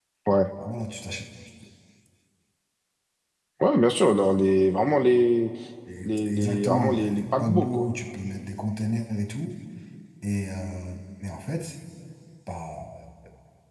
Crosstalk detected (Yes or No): Yes